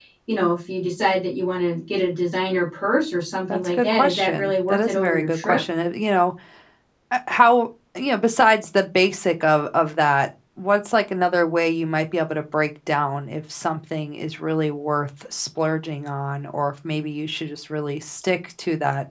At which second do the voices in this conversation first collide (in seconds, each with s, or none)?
3.5 s